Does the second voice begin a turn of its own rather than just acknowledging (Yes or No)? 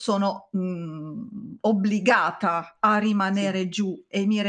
No